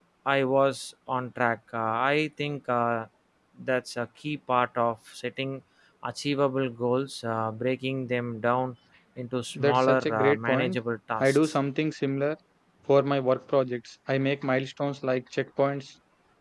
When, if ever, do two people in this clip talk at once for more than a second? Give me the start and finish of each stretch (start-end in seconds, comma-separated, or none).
9.6-10.8